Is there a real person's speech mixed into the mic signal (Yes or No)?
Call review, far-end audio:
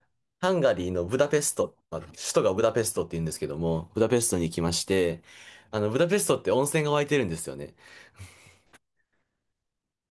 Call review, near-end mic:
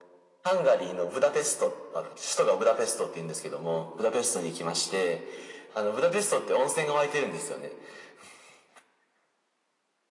No